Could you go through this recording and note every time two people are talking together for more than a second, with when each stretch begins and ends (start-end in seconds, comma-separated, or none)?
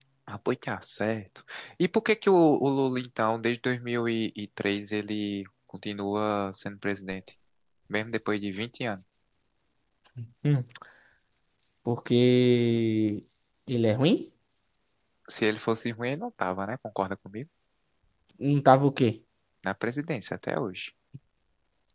none